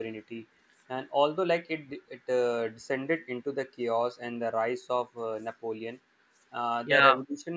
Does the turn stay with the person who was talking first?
Yes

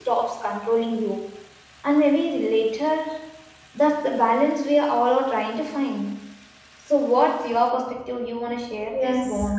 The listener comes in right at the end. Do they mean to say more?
Yes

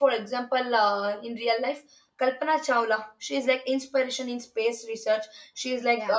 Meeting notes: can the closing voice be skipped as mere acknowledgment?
Yes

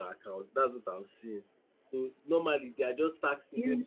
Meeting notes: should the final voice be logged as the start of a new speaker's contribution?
No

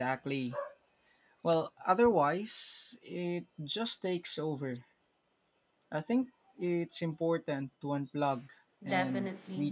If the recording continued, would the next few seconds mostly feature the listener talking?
Yes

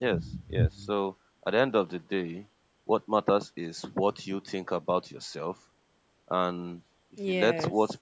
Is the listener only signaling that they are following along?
Yes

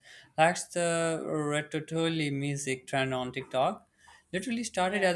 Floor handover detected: No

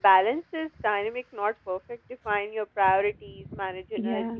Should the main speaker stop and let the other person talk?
No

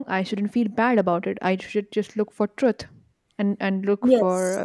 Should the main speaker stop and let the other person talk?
No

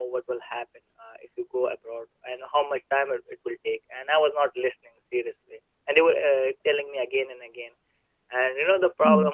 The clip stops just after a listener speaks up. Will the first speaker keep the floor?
Yes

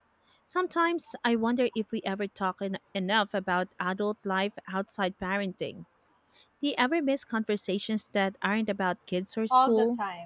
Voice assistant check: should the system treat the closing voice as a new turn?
Yes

